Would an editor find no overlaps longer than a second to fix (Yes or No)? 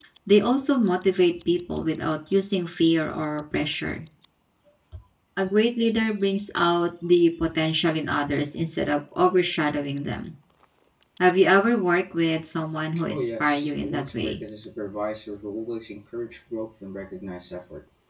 No